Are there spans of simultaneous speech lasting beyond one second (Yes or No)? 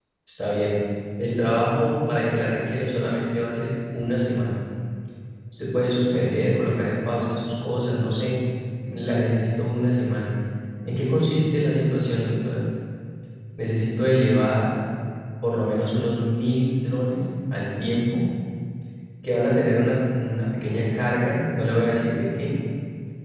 No